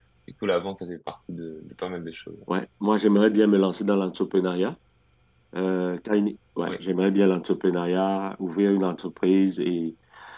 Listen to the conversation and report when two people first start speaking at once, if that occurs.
none

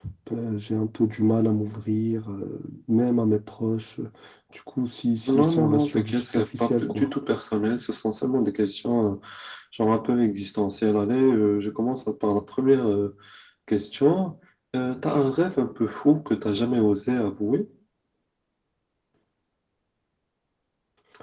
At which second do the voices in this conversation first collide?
5.3 s

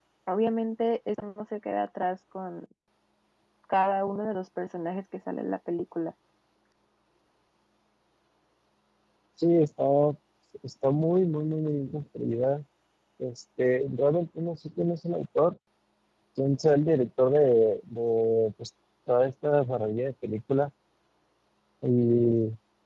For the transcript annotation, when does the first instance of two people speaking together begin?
none

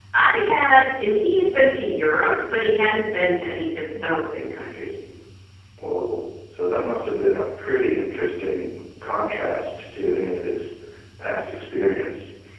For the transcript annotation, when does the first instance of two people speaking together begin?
none

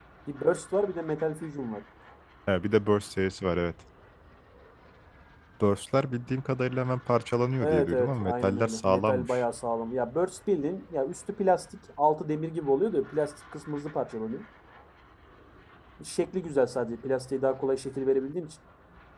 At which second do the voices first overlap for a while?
7.6 s

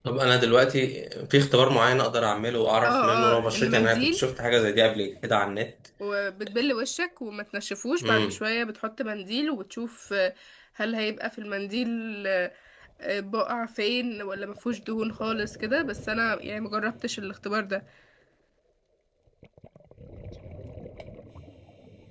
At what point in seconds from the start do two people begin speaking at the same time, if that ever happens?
2.8 s

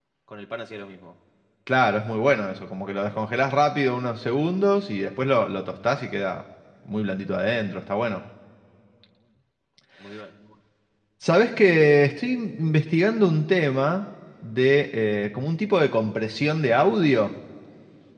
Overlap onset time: none

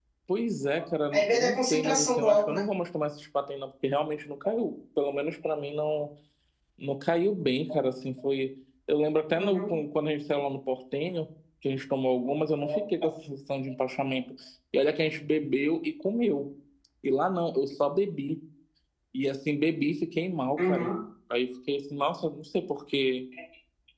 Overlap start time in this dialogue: 1.1 s

